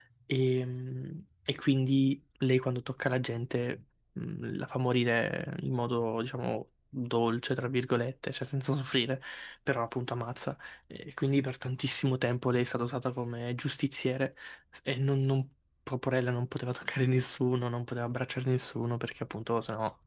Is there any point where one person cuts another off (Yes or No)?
No